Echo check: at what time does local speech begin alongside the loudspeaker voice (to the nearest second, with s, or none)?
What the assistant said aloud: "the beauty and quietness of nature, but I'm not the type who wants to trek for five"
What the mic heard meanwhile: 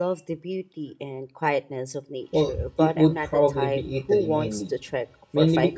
2 s